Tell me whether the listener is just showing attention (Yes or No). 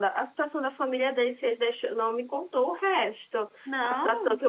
Yes